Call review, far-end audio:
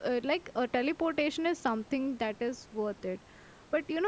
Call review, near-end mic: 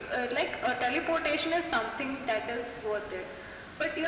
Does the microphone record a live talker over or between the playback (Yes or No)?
No